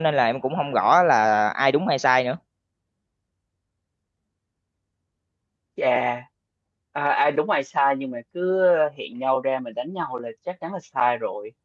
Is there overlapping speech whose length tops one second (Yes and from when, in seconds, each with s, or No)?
No